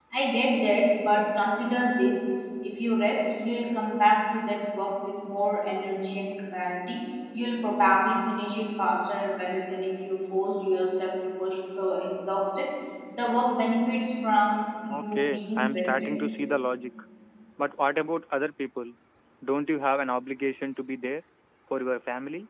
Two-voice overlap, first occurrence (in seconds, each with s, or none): 14.9 s